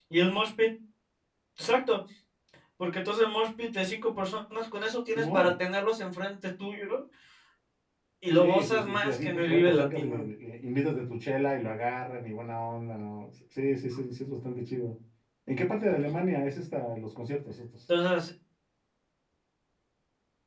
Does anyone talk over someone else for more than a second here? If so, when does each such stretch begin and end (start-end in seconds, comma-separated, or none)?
8.4-10.2